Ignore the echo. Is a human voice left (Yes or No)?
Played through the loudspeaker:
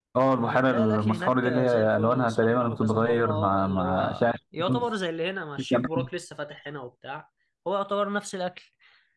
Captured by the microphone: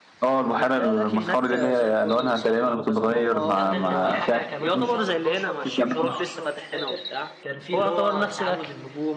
Yes